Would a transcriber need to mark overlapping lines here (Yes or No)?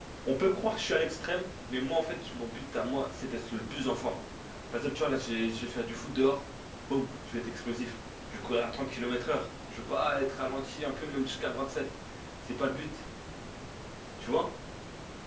No